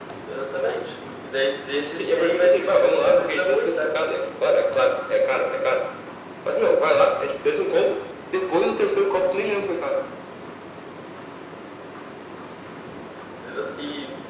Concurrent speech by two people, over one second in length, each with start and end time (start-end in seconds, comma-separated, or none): 1.9-4.0